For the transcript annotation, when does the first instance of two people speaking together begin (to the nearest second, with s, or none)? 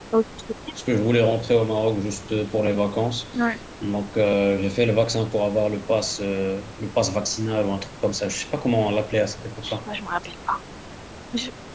none